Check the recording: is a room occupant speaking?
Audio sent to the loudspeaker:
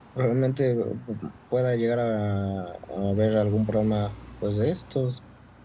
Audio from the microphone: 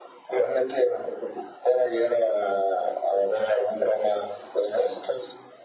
No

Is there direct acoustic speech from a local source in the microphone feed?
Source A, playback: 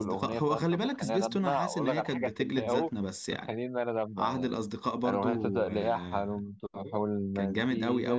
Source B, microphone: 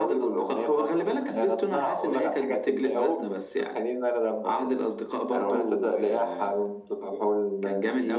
No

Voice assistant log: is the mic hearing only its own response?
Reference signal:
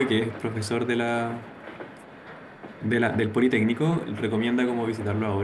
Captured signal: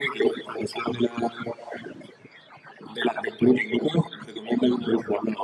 Yes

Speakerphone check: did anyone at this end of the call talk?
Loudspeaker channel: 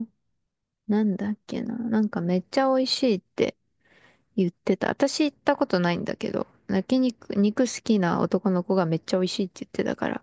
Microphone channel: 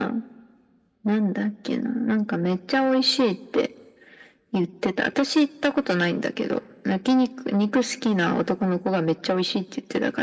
No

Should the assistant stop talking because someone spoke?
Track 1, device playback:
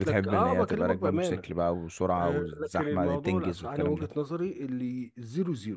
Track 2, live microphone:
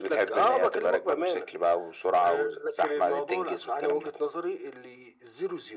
No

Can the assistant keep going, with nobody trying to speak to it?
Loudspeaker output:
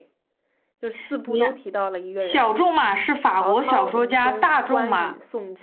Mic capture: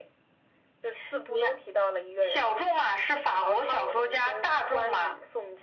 Yes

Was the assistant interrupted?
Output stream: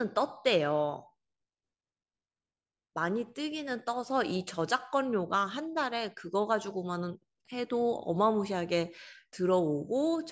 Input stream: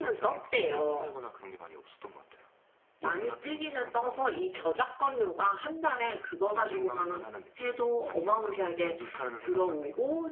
Yes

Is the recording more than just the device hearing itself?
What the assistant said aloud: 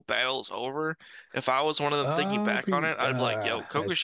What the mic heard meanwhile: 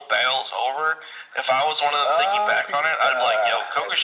No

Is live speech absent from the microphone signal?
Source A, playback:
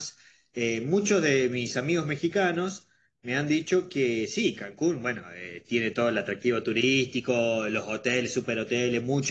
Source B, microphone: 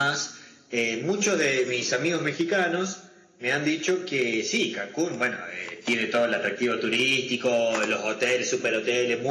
Yes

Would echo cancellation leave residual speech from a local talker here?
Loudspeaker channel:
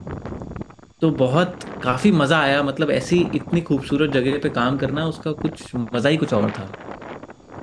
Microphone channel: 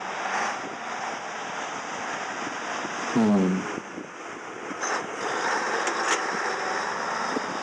Yes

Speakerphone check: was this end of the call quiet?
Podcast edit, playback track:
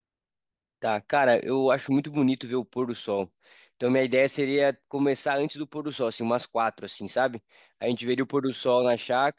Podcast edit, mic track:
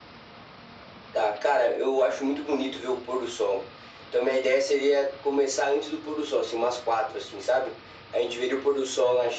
Yes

